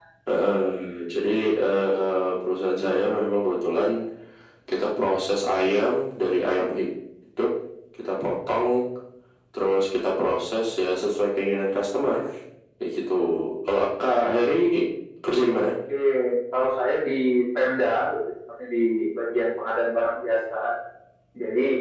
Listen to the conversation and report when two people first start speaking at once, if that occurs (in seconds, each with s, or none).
none